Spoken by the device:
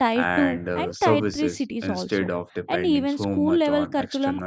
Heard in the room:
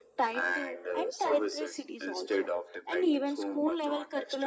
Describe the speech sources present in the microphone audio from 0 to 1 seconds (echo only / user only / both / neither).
echo only